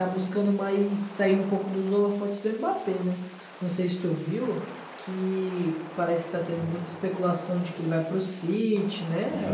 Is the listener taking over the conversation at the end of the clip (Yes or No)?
Yes